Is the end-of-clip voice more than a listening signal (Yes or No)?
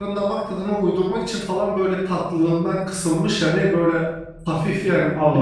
No